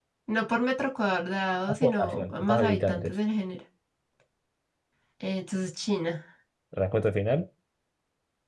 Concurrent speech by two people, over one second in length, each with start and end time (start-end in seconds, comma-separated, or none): 1.8-3.1